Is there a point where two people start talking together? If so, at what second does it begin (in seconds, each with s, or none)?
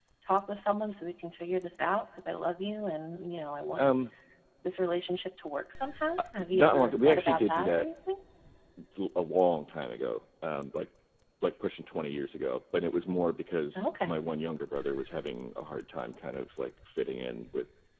6.4 s